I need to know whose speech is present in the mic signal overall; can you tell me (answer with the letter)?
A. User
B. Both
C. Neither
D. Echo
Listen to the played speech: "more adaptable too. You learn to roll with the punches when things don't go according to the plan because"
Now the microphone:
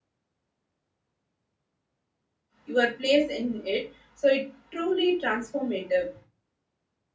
A